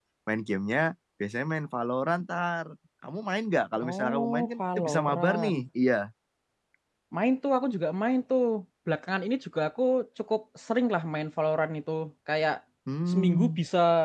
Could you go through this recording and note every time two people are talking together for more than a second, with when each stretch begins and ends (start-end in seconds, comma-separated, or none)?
3.8-5.6